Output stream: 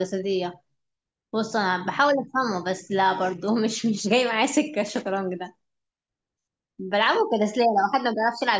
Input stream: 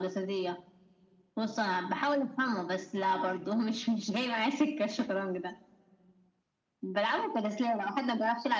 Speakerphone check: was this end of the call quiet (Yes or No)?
Yes